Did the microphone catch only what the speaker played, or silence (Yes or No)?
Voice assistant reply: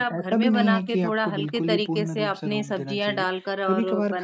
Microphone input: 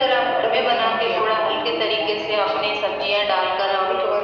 Yes